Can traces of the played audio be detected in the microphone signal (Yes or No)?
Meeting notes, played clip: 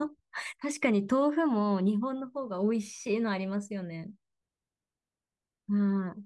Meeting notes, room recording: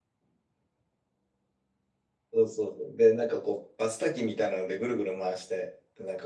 No